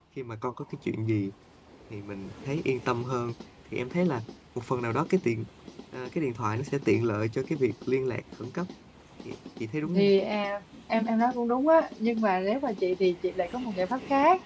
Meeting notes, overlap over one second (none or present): none